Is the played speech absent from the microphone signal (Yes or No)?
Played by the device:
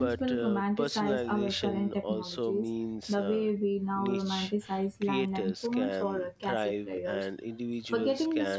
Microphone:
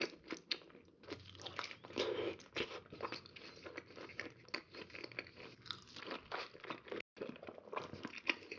Yes